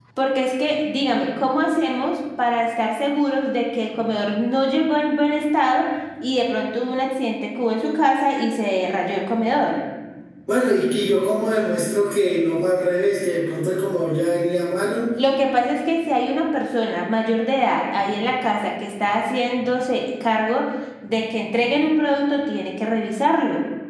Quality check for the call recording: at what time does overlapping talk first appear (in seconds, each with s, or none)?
none